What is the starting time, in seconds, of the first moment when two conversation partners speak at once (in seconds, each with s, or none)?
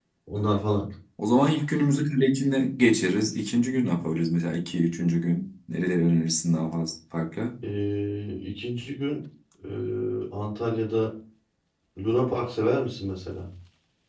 none